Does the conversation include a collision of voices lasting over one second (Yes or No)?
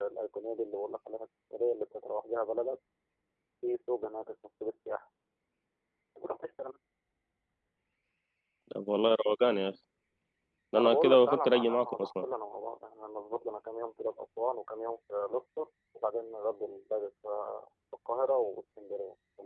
Yes